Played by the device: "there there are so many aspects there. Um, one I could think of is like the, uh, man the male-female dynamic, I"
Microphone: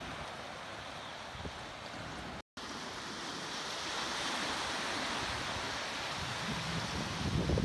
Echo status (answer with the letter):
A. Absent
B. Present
A